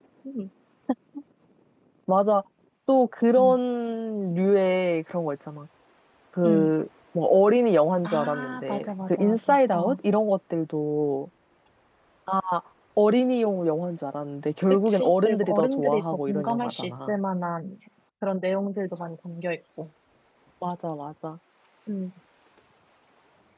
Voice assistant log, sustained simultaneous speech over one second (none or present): present